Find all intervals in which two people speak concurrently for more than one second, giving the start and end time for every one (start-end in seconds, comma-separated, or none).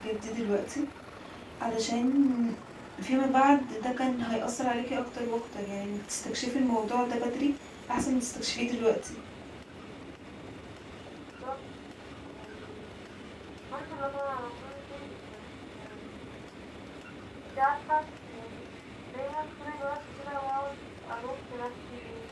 none